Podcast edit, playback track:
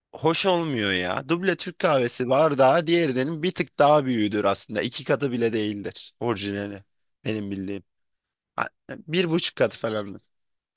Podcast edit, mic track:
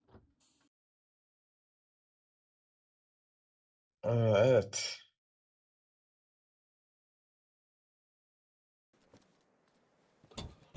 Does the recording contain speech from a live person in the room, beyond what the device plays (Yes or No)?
Yes